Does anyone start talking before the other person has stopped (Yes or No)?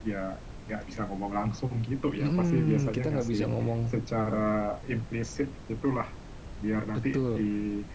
Yes